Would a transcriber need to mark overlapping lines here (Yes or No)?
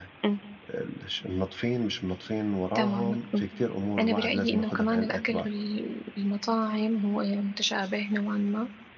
Yes